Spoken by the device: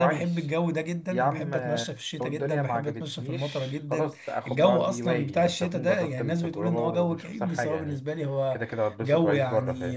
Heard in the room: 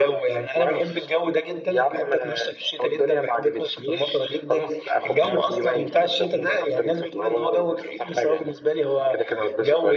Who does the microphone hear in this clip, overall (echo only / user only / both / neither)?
echo only